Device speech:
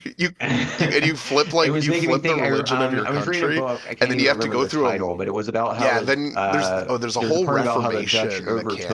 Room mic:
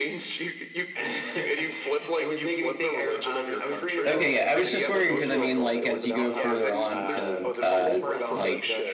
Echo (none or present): present